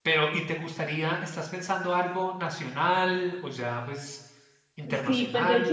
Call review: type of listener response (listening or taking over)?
taking over